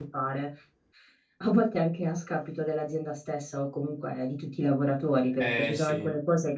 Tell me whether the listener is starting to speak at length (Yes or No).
No